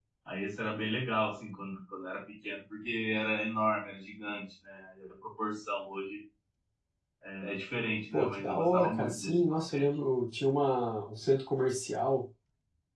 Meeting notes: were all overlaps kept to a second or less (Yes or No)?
No